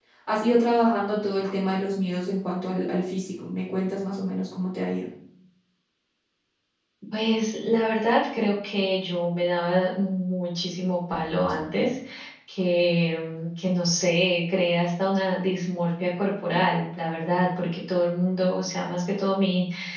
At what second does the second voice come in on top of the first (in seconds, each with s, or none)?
none